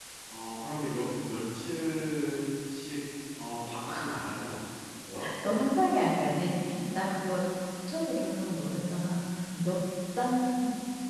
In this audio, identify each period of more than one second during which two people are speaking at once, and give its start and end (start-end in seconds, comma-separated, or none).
none